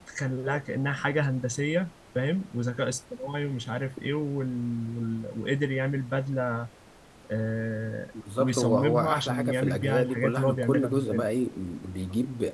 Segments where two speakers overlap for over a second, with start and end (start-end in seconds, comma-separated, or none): 8.4-11.3